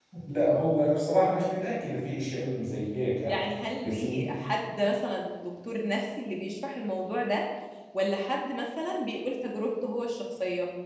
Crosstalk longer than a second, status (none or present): none